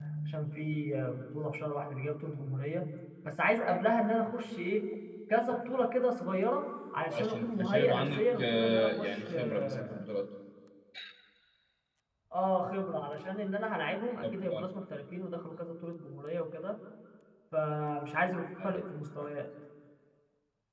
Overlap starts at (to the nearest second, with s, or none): 7 s